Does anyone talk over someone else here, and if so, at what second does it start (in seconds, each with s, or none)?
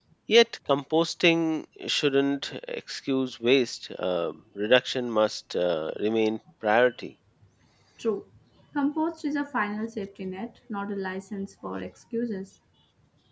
none